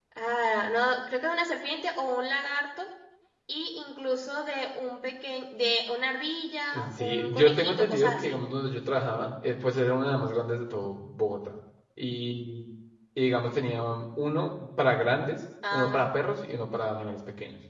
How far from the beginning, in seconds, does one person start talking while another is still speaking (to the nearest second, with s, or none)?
7 s